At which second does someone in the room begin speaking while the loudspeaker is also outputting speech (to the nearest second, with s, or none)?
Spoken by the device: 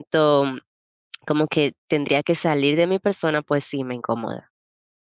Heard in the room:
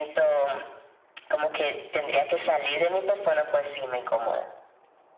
none